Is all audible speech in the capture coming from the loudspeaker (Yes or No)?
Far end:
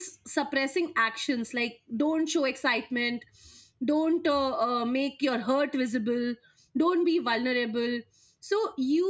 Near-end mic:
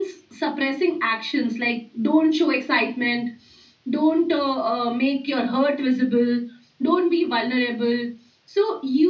Yes